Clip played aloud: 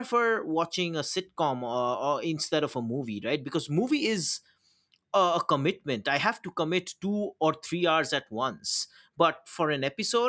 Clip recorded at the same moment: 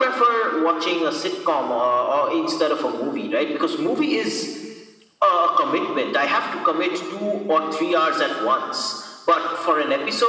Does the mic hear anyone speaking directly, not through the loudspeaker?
No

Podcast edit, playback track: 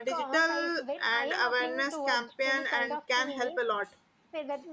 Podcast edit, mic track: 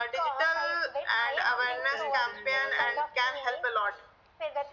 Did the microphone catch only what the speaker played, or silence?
No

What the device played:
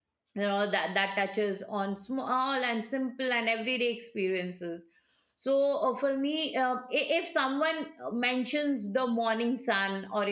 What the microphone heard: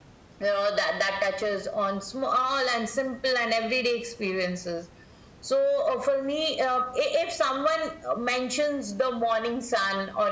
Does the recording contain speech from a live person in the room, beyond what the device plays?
No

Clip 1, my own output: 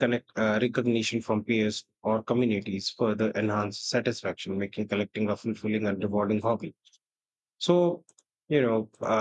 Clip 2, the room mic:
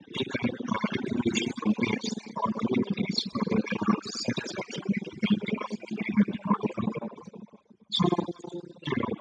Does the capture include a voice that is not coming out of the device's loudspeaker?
No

